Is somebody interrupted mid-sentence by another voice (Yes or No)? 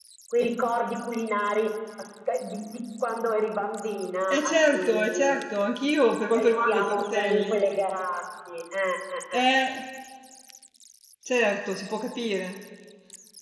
Yes